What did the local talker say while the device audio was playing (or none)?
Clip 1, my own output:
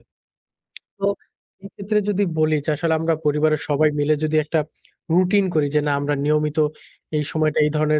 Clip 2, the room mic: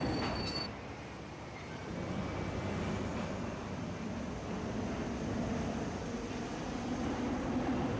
none